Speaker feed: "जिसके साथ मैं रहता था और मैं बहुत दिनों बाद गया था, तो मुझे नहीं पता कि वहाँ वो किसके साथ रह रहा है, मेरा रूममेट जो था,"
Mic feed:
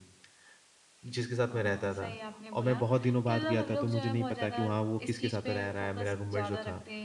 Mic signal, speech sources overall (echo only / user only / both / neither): both